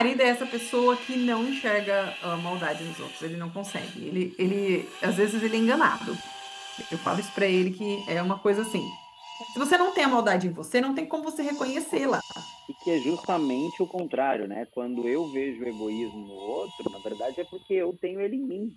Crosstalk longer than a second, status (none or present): none